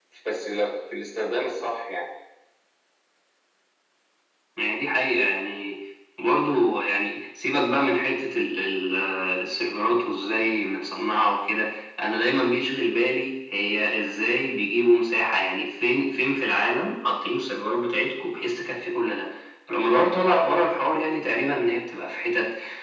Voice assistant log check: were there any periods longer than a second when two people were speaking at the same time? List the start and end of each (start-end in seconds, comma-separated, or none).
none